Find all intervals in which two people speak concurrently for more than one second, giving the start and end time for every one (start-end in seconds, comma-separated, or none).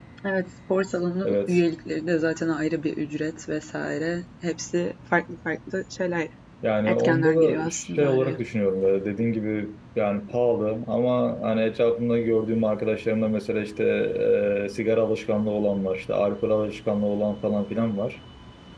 6.8-8.4